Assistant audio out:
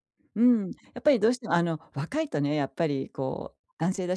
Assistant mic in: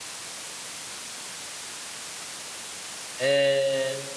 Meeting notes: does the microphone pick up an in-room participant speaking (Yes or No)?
Yes